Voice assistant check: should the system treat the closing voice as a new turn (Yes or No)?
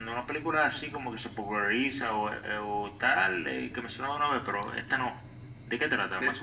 Yes